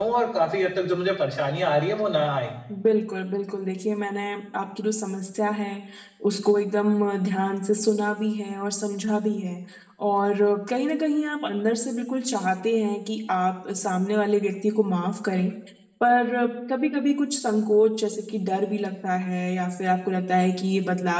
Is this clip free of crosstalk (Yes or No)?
Yes